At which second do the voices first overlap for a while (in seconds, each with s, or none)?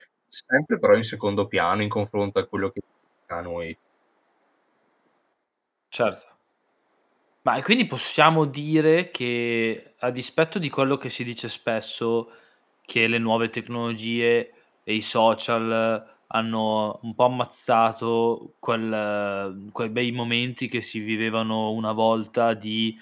none